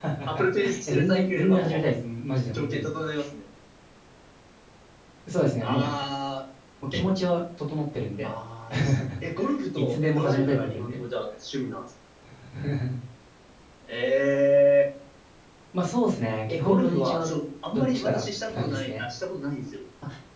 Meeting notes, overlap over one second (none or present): present